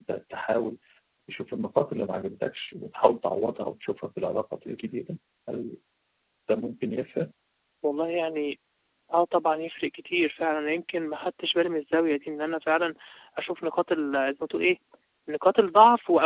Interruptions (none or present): none